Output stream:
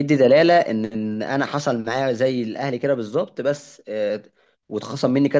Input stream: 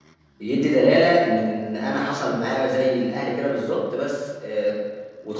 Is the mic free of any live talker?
Yes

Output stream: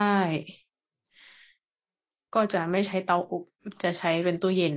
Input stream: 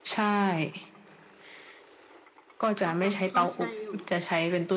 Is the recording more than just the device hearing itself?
Yes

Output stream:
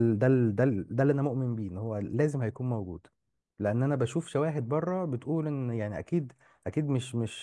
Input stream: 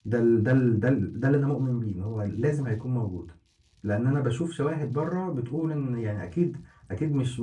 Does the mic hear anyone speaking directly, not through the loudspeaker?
No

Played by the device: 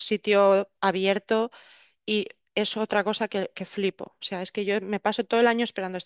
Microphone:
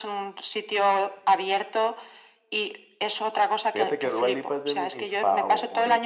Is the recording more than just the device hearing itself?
Yes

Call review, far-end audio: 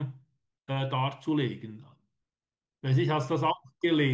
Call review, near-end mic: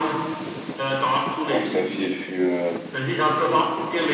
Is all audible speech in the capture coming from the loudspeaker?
No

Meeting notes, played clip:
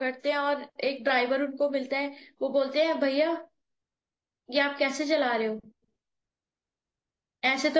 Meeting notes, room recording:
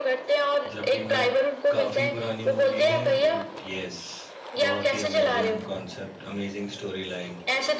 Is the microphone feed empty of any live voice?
No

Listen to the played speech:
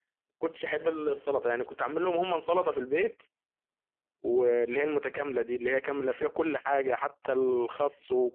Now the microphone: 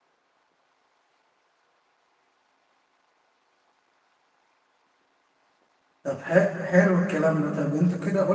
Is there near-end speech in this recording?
Yes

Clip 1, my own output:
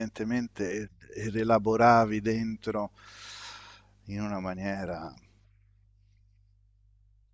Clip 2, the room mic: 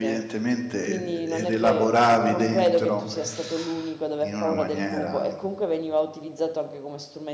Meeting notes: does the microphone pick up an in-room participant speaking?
Yes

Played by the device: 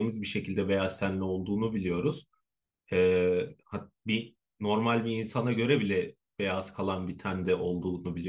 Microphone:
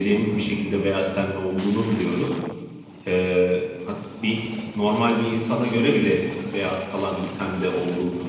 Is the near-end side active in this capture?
No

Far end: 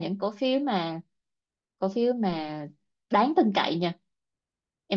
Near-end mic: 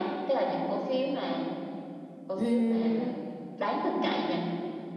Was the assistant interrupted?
Yes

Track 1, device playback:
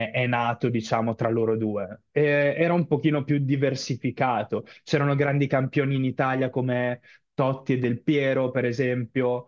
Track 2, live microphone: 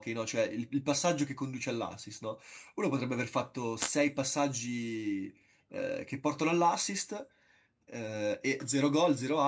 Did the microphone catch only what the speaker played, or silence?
No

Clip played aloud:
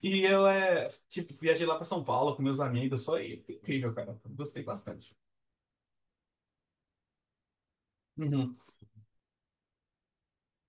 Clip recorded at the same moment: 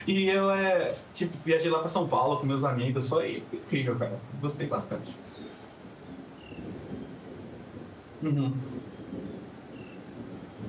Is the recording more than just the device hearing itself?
No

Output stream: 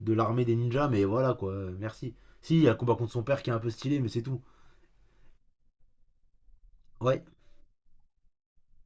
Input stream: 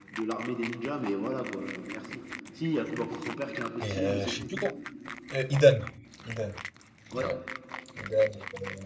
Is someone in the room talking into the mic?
Yes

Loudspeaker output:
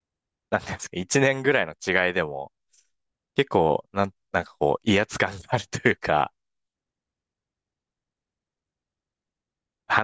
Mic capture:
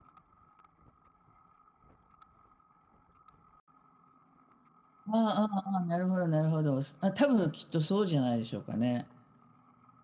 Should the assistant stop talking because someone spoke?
Yes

